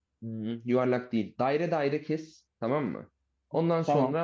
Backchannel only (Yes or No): Yes